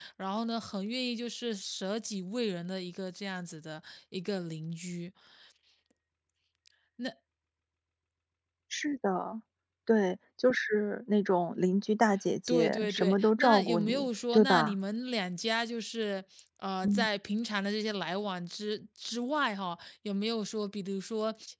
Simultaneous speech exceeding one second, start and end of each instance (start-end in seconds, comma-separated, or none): 12.5-14.8